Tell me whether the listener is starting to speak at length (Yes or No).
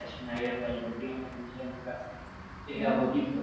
No